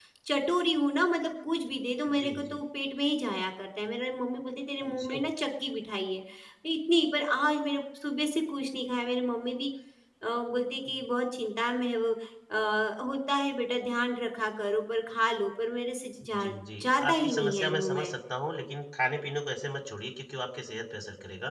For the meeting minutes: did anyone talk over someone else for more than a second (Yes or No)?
Yes